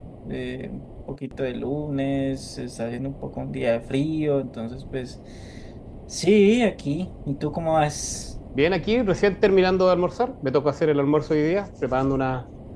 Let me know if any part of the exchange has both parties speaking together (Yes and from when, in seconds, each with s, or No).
No